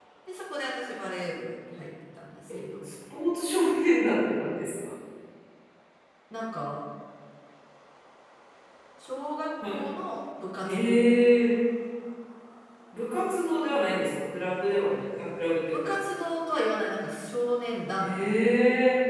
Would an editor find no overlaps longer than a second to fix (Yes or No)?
Yes